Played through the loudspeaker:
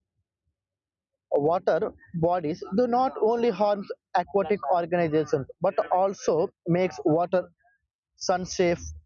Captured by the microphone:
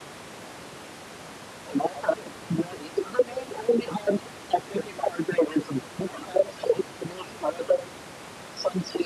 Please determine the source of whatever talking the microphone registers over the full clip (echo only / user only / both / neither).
echo only